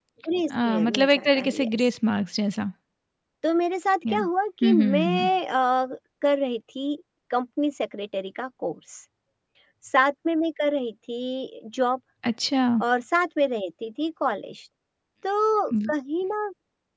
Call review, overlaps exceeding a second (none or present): present